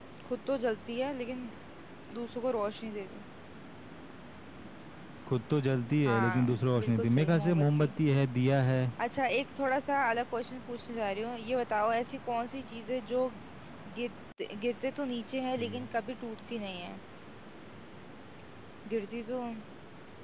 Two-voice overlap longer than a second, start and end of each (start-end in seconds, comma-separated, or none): 6.1-7.9